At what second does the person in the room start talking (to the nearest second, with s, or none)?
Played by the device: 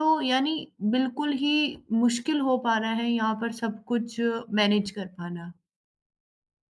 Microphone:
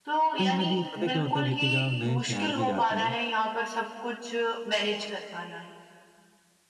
0 s